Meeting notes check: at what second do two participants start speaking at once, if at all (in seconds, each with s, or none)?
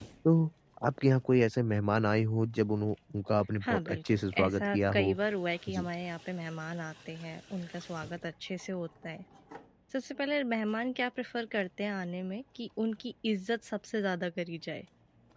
3.6 s